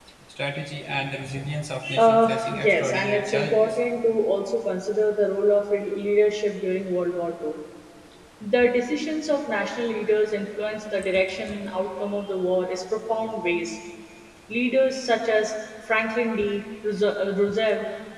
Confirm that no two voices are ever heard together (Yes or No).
No